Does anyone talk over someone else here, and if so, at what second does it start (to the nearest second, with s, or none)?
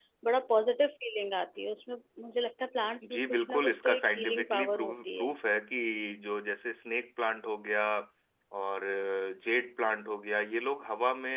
3 s